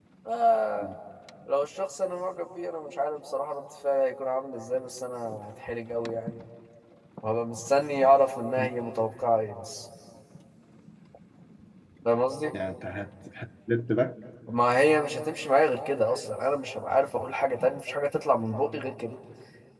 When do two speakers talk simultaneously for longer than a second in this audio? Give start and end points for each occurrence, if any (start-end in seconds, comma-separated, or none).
none